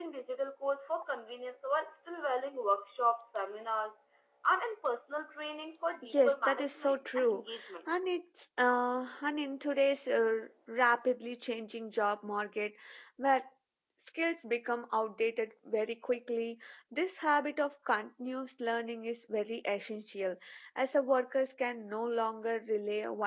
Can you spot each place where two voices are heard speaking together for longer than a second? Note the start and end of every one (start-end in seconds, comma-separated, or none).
6.0-7.4